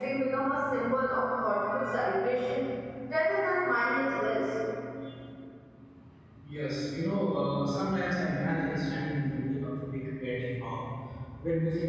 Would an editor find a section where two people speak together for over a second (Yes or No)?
No